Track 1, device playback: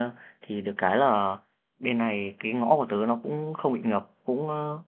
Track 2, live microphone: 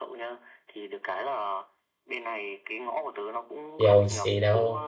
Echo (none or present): present